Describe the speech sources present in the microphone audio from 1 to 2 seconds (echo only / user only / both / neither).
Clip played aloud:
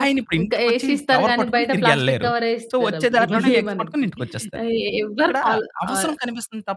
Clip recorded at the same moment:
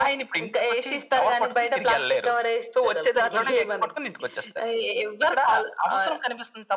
echo only